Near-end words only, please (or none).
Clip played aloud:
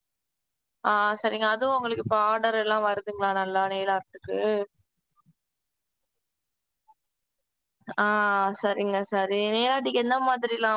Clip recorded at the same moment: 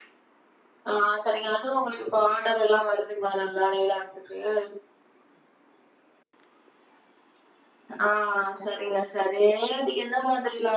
none